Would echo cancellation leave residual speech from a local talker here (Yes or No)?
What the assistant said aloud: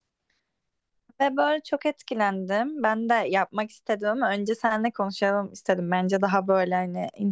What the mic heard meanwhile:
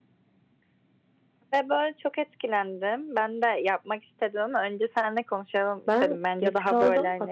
Yes